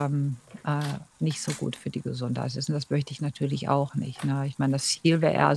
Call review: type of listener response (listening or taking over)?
listening